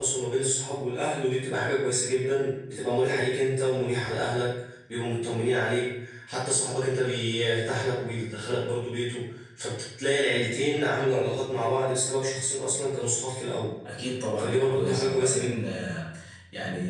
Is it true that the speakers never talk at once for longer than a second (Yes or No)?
No